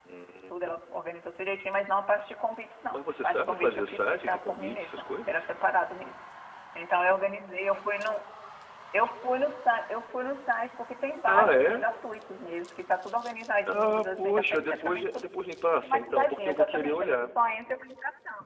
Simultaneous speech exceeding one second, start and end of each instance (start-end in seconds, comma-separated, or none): 2.9-5.5, 13.7-15.2, 15.8-17.3